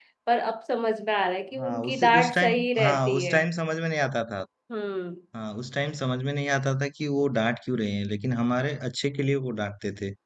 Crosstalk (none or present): present